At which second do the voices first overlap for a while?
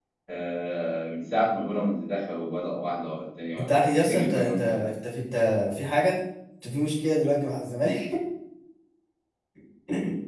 4 s

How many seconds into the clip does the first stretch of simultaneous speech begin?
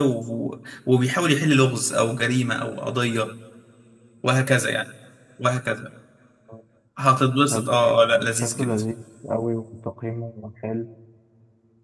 8 s

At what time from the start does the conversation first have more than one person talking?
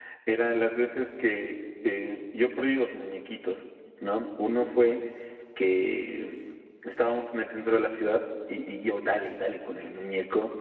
none

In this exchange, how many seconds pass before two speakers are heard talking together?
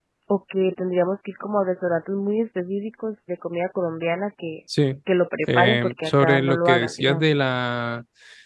6 s

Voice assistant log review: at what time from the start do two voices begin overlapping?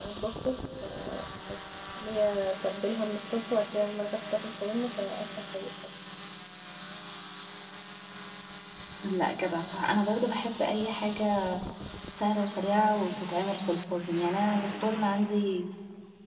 none

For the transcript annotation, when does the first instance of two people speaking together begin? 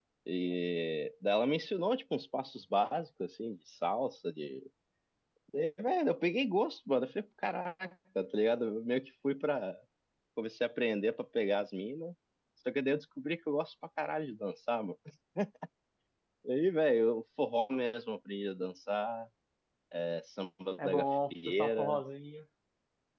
21 s

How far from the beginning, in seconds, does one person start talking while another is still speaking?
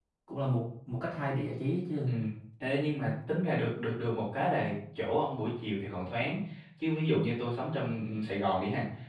none

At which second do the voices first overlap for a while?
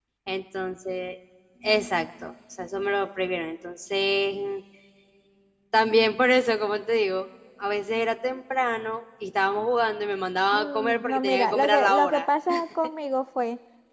11 s

